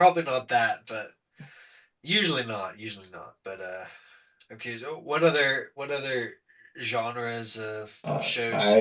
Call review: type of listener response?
taking over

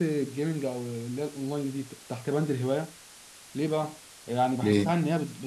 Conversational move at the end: listening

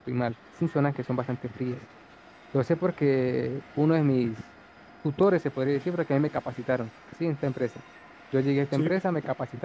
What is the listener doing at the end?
listening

